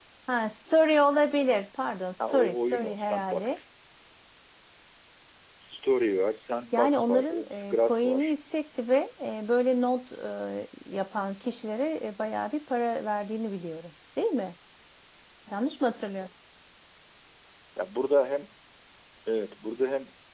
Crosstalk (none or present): present